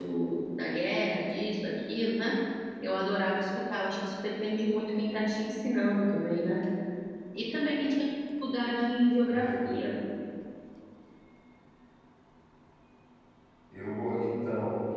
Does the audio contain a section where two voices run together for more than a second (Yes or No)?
No